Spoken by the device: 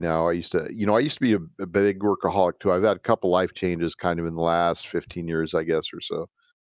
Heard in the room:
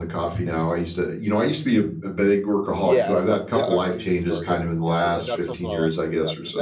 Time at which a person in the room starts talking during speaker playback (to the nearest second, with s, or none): 3 s